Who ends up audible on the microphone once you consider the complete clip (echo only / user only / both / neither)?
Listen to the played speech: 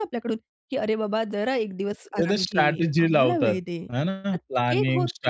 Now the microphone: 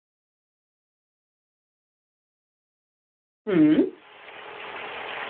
user only